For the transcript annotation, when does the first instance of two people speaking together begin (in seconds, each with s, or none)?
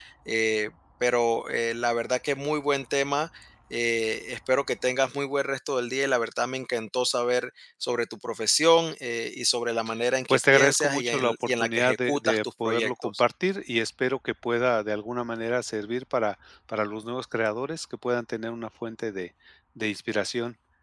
10.3 s